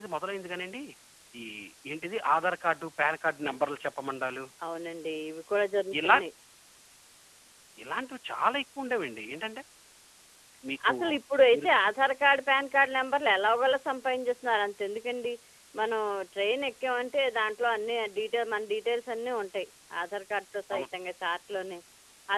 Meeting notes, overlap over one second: none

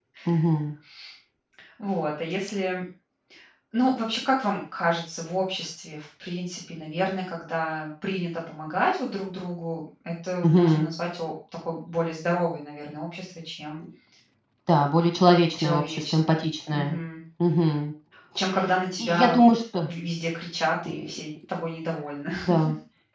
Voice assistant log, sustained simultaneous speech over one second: present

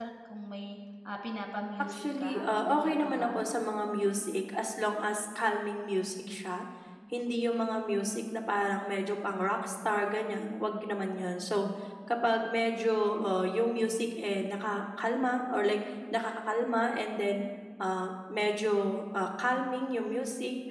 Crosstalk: present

